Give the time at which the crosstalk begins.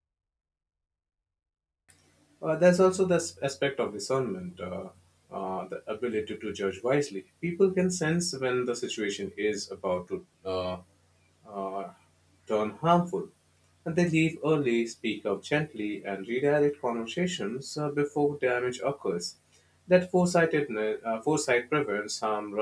none

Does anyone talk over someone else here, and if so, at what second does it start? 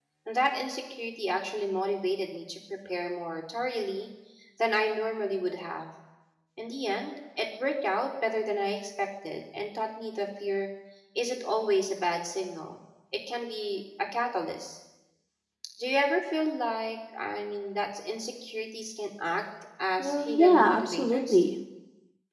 20.0 s

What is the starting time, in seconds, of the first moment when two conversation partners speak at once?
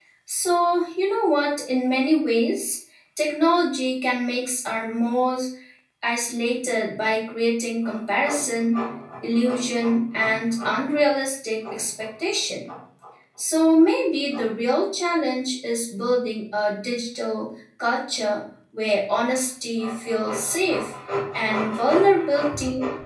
none

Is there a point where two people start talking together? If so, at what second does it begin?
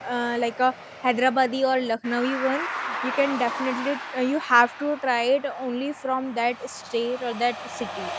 none

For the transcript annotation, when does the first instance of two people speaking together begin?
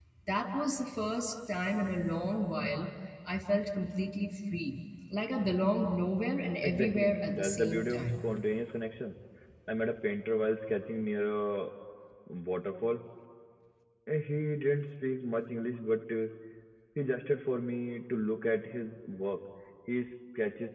6.6 s

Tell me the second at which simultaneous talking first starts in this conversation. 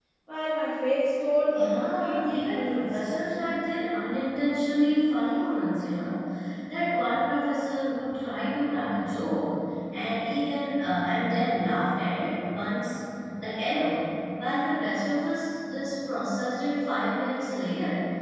1.5 s

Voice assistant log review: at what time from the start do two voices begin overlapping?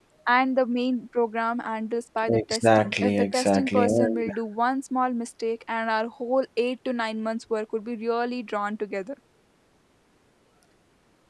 2.3 s

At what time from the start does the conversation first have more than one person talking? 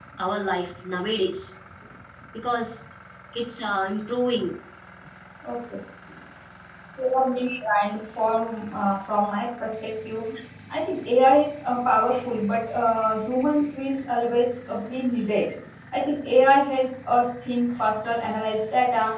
none

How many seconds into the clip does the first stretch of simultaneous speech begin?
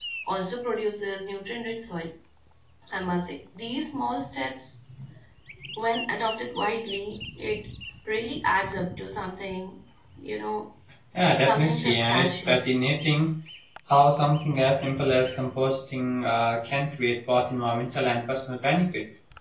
11.4 s

